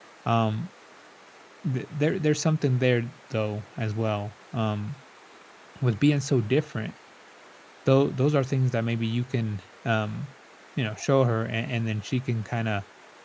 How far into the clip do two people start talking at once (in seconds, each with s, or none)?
none